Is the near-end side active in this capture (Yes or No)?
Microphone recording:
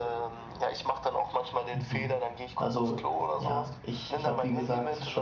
Yes